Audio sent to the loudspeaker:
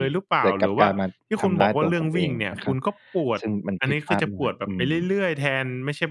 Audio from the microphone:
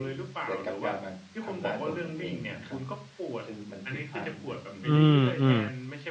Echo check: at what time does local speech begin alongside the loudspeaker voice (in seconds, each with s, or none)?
4.8 s